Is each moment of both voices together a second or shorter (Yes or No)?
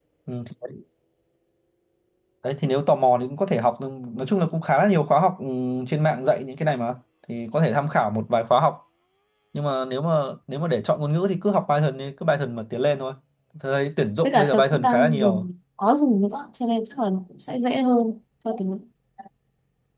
No